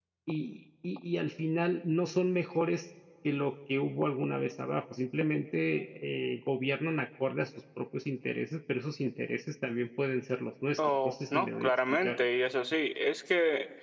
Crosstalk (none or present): present